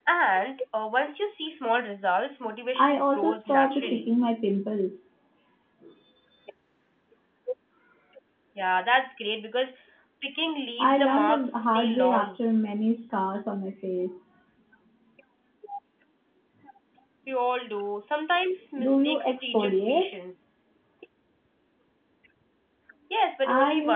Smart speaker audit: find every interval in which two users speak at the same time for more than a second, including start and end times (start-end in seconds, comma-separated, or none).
2.8-4.1, 10.8-12.3, 18.8-20.2